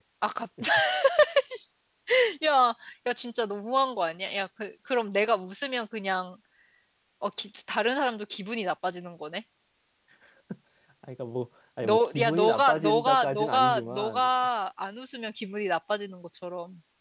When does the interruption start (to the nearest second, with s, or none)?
12 s